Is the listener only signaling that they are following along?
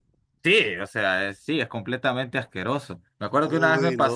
Yes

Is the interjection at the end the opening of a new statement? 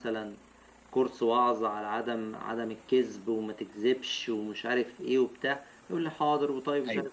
No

